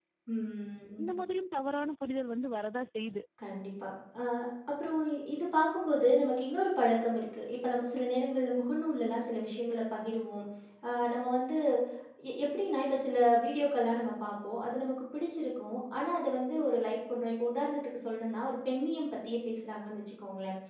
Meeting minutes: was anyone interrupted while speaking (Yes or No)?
No